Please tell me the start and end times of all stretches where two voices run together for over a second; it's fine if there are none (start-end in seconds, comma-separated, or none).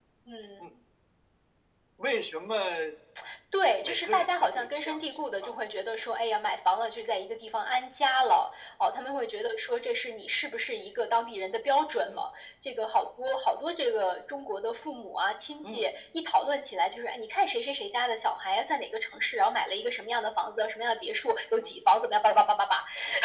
3.8-5.5